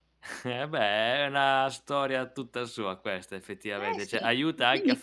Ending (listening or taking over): taking over